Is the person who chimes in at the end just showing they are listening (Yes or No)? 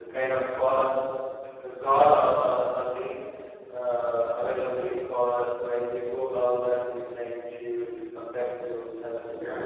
No